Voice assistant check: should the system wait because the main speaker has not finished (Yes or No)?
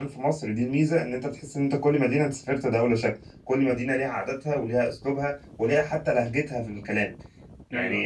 Yes